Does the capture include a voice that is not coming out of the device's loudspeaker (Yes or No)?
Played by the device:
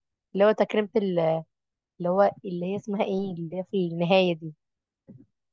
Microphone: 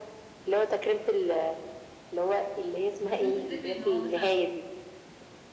Yes